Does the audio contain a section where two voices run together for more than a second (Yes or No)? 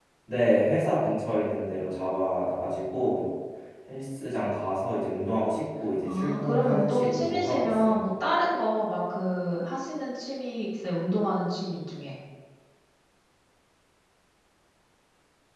Yes